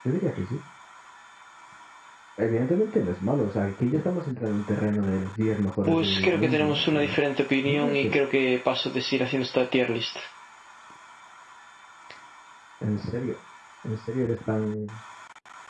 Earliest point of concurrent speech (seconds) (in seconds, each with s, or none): 5.9 s